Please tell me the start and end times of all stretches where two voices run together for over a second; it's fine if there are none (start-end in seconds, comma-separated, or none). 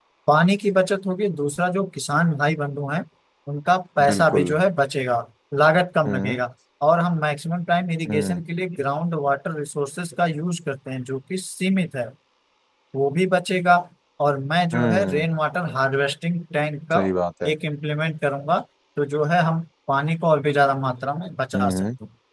none